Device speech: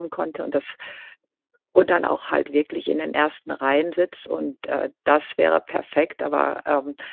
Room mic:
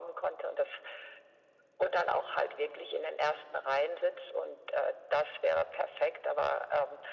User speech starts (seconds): none

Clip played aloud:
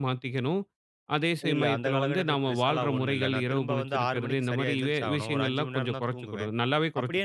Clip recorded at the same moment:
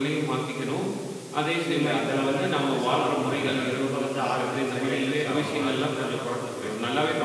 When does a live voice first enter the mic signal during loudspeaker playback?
none

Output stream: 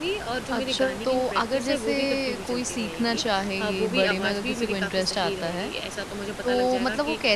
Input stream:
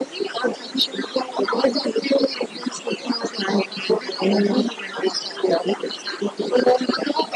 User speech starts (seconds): none

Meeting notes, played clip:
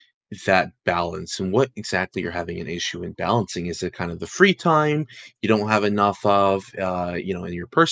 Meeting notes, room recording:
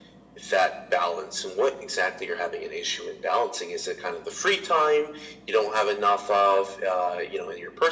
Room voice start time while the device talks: none

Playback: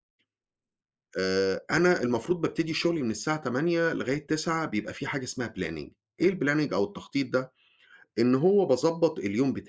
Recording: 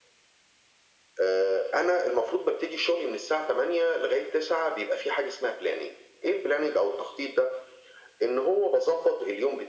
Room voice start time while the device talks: none

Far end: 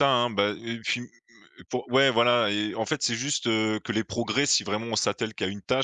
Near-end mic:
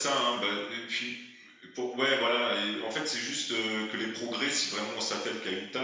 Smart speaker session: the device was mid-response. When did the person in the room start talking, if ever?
none

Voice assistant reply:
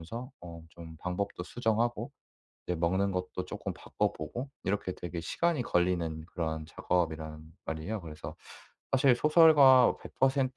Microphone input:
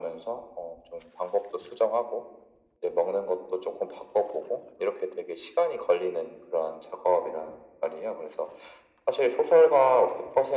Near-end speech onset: none

